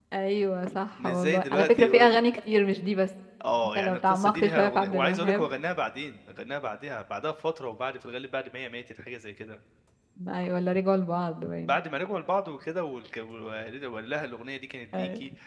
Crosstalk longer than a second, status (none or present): present